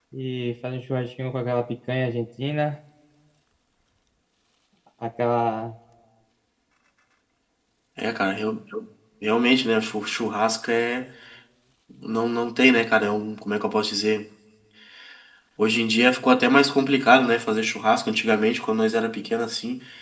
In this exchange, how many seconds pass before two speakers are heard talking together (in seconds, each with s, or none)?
none